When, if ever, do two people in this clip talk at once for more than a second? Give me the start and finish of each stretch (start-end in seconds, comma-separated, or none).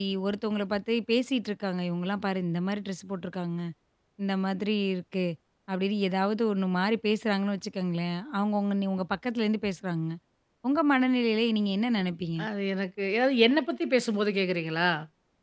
none